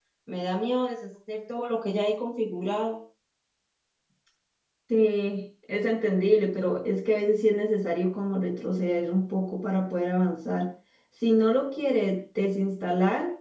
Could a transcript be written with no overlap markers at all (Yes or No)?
Yes